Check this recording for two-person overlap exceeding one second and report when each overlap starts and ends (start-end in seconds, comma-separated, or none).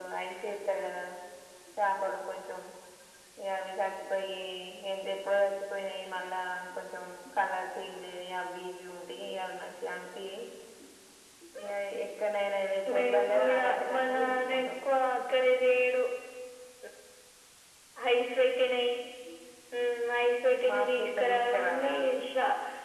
12.9-14.7, 20.7-21.9